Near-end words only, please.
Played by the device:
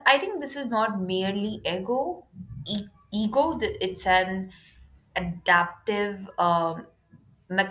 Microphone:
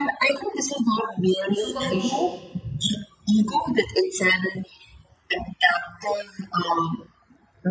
superficial,

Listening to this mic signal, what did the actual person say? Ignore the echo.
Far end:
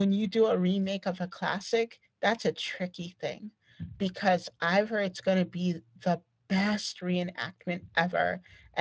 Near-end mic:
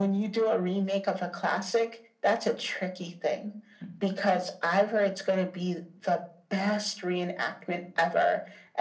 none

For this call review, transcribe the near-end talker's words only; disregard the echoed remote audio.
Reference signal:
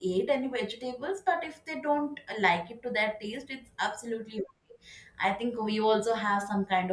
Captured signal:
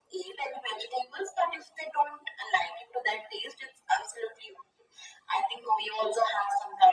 none

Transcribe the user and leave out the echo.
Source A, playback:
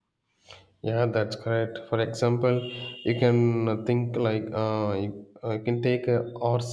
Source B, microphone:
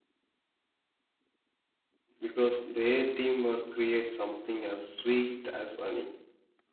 because their teamwork creates something as sweet as honey.

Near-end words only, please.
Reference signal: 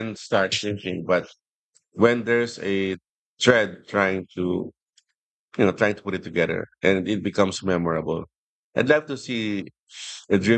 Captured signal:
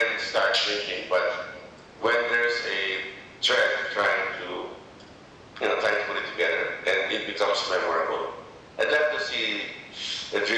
none

